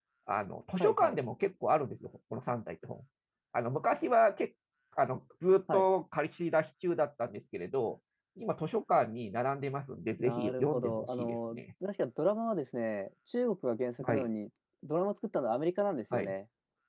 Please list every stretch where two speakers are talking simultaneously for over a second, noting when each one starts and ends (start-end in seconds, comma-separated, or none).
10.2-11.6